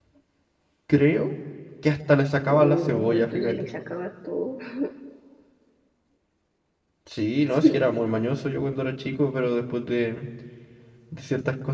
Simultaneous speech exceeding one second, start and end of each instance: 2.5-3.7

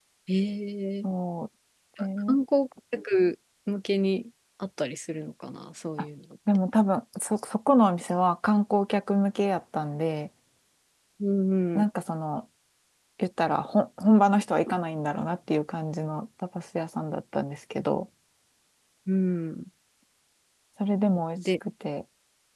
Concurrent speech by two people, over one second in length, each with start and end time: none

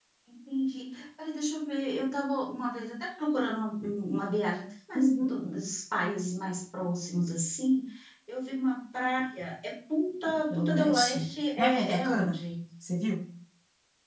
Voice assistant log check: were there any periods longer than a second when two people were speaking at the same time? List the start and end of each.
10.5-12.4

